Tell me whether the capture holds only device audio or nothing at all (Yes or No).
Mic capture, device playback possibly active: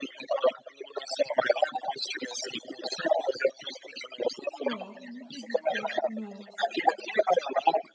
No